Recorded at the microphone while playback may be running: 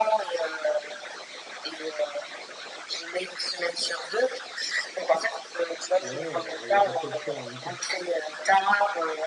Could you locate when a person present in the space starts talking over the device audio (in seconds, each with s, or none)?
6.0 s